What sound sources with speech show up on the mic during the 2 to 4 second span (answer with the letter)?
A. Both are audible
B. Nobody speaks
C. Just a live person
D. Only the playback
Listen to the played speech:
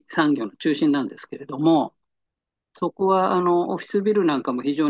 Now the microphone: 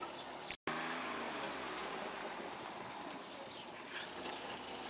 B